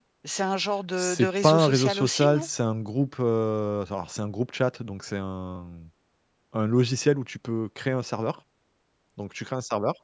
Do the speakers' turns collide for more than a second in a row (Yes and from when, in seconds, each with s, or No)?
Yes, from 1.0 s